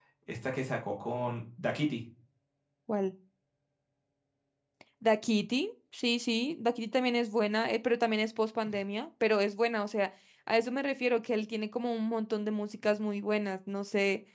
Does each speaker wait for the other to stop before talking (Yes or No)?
Yes